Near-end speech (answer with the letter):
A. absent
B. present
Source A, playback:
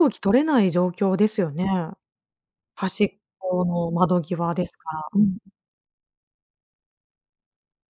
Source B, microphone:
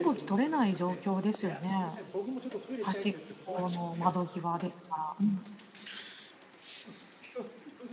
B